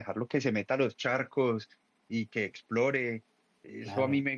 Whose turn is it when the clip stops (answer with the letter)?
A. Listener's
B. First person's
B